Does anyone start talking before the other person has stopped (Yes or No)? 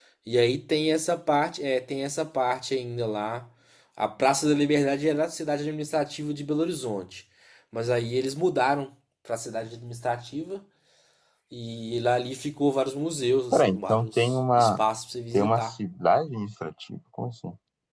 Yes